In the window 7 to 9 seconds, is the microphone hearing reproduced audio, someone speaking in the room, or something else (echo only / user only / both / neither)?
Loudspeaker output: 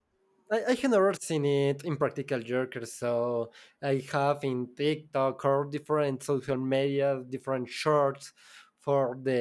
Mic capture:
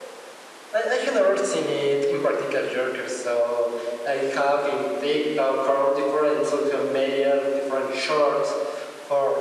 echo only